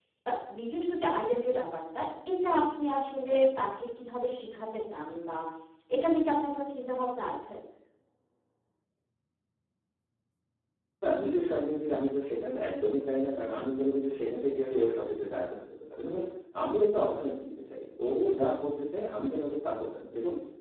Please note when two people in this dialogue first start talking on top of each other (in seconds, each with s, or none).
none